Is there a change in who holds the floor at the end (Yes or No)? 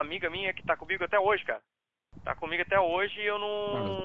Yes